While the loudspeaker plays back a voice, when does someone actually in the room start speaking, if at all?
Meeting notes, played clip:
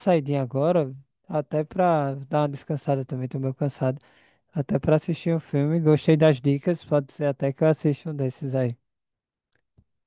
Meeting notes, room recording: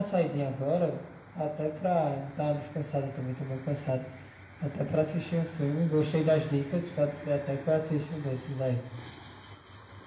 none

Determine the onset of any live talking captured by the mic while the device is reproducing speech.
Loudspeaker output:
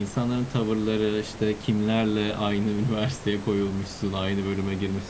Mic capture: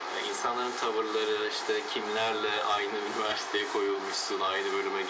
none

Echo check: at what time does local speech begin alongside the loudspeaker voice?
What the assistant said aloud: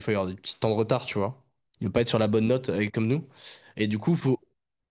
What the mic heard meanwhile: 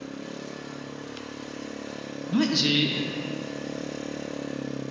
2.3 s

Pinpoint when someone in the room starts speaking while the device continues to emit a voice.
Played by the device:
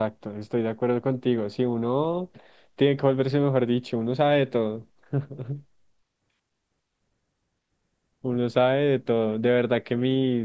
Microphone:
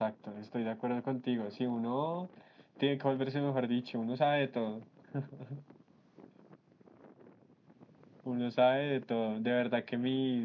none

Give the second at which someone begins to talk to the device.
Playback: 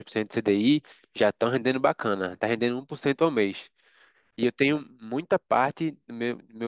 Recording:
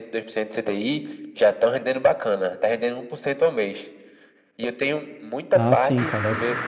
5.5 s

